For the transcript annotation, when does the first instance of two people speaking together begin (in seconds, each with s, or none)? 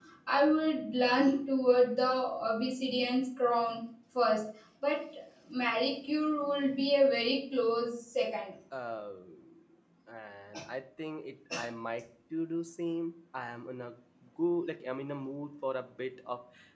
none